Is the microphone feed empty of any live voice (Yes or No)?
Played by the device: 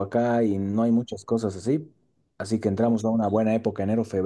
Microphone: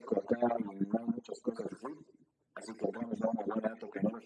Yes